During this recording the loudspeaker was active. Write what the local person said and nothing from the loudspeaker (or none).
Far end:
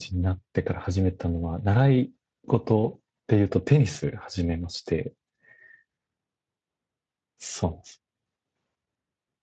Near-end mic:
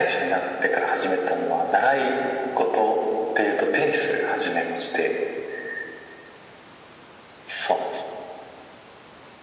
none